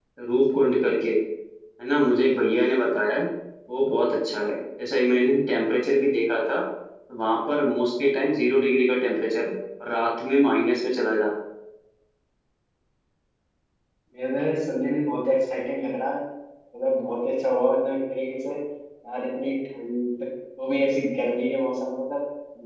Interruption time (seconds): none

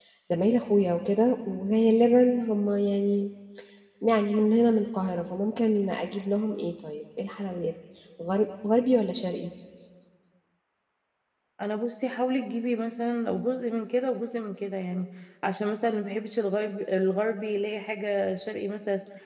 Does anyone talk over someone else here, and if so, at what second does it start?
none

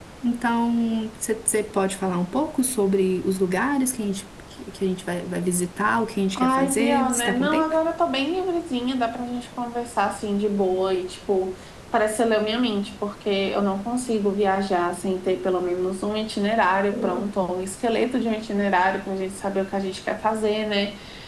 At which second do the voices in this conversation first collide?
6.3 s

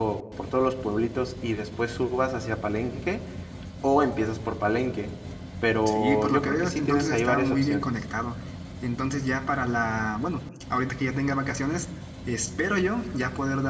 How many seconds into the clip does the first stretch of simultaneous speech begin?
5.8 s

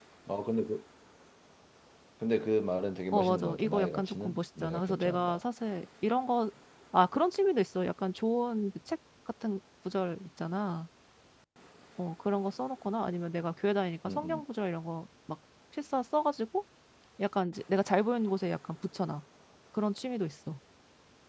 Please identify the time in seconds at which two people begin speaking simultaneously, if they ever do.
3.1 s

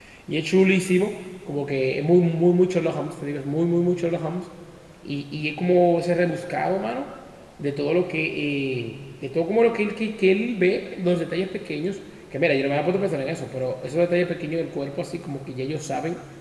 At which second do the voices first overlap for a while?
none

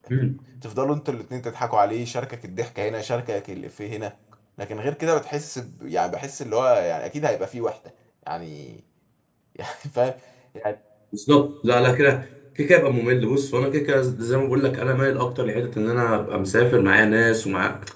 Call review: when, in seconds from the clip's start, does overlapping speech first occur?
none

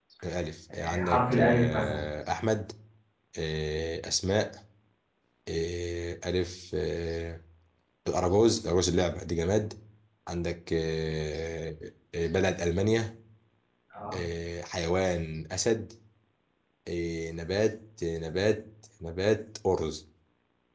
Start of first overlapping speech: 0.7 s

